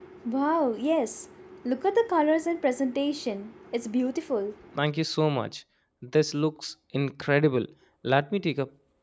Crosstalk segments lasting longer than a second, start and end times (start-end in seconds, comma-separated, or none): none